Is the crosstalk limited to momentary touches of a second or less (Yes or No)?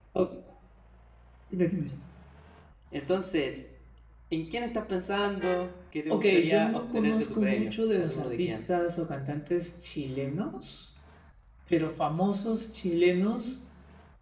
No